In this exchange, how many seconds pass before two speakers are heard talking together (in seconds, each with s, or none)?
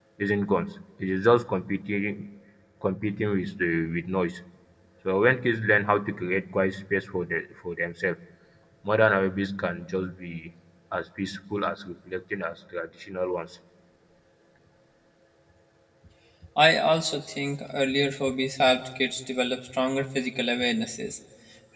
none